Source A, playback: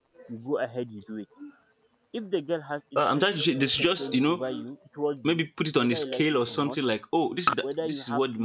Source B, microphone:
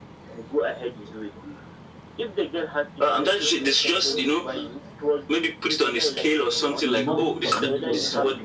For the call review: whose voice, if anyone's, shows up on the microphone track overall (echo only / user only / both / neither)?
both